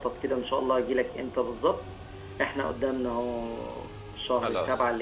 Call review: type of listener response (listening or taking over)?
listening